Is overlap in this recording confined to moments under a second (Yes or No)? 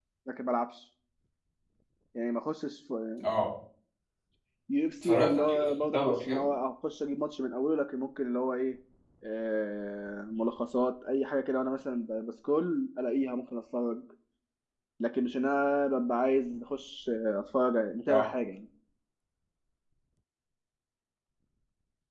No